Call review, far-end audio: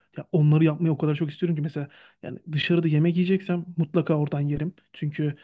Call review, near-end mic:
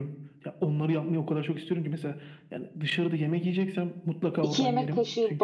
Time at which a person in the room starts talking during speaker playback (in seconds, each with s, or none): 4.4 s